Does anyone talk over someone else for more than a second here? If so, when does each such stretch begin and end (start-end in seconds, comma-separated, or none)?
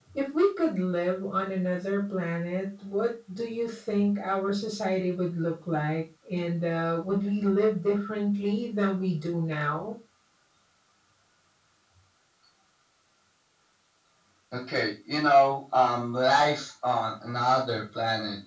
none